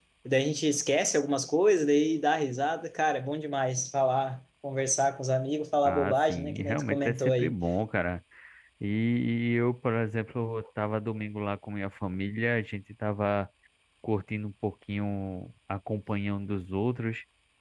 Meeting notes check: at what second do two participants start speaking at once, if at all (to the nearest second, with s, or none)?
6 s